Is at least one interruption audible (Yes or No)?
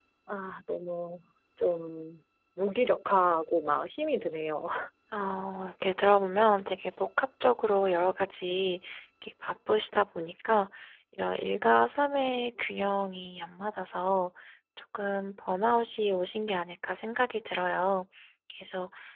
No